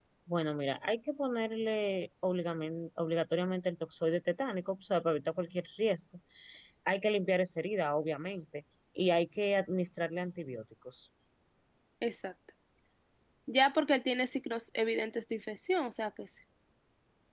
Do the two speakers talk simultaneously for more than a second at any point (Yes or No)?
No